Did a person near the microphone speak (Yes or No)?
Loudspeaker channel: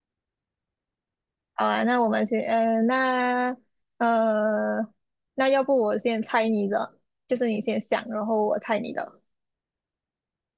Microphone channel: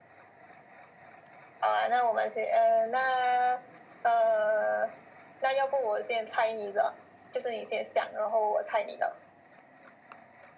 No